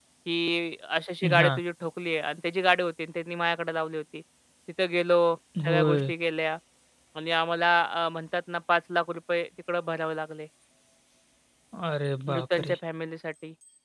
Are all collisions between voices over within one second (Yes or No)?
Yes